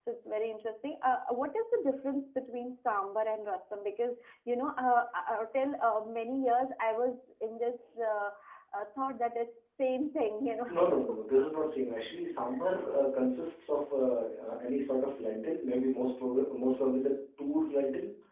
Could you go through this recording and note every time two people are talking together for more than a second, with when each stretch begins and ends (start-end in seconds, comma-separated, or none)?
none